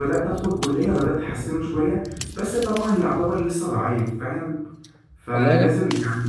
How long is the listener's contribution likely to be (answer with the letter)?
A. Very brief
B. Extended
A